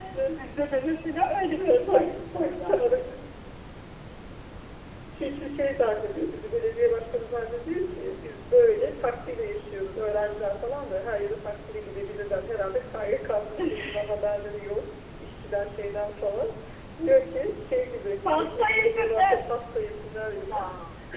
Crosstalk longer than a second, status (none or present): present